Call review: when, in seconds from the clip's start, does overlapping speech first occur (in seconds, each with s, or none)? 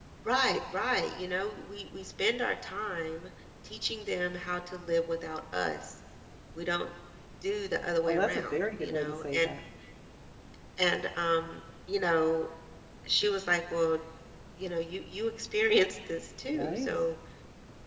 8.1 s